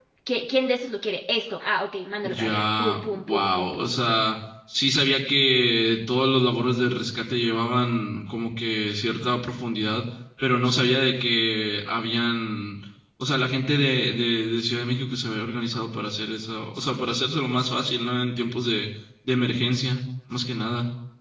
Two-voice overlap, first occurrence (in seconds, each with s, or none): 2.2 s